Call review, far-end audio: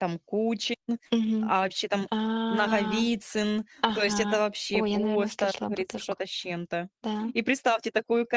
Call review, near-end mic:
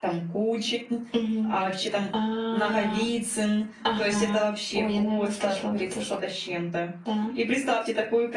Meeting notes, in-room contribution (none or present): none